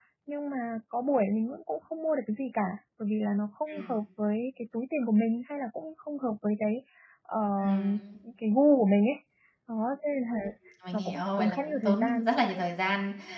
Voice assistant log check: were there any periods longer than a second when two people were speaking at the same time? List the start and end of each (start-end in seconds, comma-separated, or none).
10.9-12.3